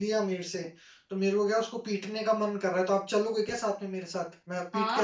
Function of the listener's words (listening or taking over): taking over